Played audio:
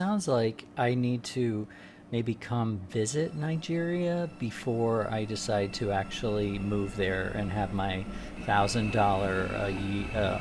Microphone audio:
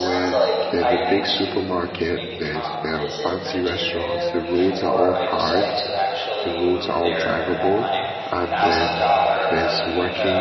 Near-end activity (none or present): present